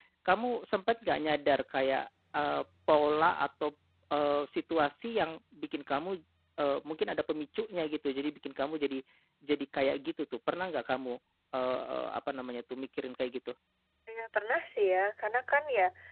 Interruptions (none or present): none